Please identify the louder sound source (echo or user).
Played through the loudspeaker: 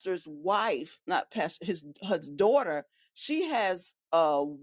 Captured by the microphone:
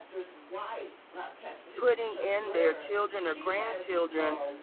user